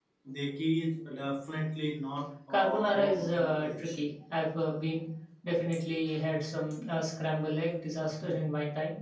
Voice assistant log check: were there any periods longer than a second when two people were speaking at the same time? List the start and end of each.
2.5-3.9

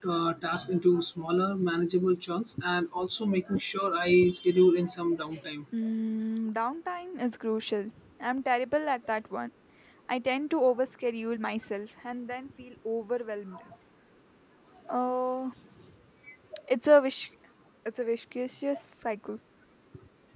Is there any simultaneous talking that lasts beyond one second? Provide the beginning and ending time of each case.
none

